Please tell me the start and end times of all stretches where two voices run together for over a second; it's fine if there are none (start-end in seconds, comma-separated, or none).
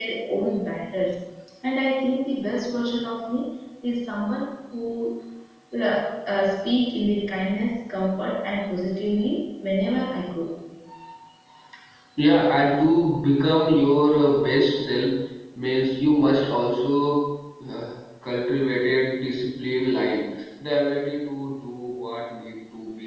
none